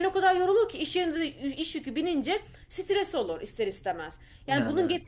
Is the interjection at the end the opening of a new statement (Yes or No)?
No